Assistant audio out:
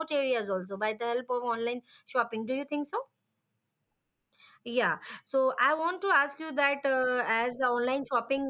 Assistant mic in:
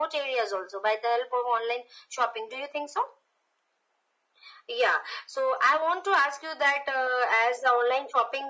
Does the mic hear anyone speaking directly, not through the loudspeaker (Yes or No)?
No